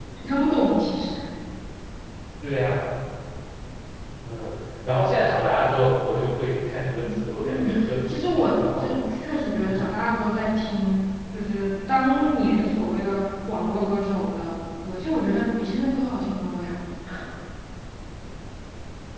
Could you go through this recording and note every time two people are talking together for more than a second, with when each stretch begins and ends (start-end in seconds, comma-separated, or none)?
7.0-9.0